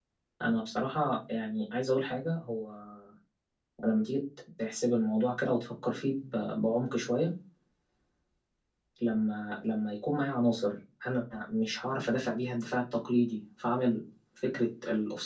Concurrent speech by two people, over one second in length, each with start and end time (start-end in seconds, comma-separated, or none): none